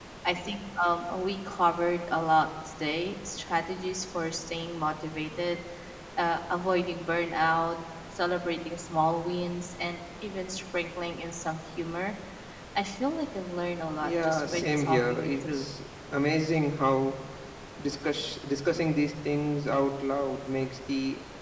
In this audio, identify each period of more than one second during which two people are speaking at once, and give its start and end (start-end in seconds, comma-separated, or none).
14.0-15.7